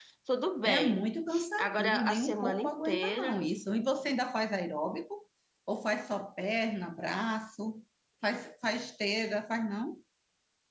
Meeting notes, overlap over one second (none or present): present